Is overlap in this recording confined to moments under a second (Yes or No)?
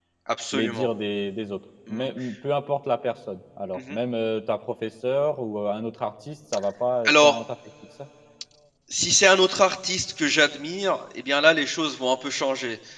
Yes